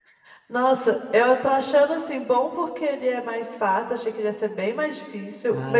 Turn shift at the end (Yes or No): Yes